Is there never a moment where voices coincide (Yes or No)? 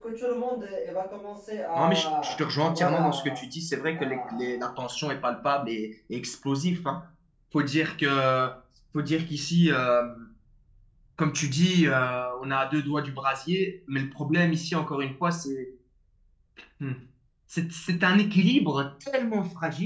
No